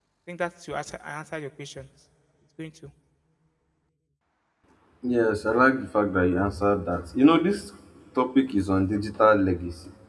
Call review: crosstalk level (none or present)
none